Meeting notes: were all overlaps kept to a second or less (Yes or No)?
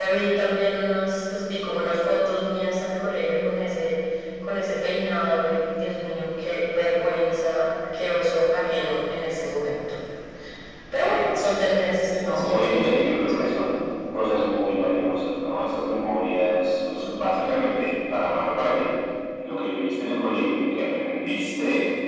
No